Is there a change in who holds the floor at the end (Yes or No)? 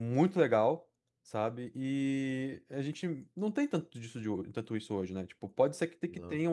No